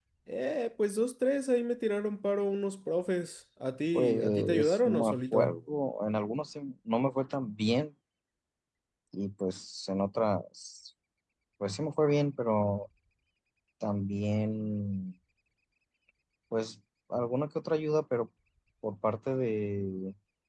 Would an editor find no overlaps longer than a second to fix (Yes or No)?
No